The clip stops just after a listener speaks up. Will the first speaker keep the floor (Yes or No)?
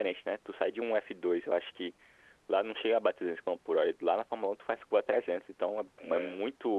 Yes